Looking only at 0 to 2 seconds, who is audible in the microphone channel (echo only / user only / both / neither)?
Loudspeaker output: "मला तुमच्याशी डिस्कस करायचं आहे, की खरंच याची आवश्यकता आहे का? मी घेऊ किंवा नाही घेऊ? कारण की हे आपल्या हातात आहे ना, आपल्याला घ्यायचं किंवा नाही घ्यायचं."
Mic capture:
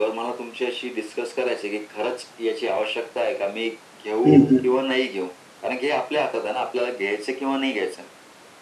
echo only